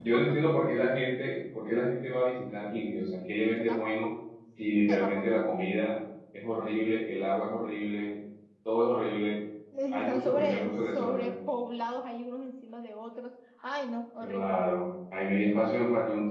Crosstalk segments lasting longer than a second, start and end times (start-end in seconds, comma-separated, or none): 9.9-11.4